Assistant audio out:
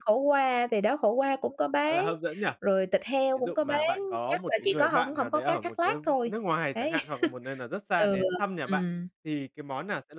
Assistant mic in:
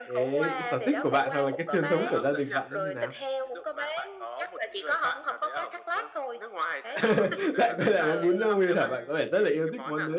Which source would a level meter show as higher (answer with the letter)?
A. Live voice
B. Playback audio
A